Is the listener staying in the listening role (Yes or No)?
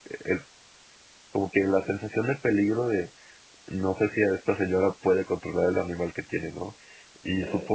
Yes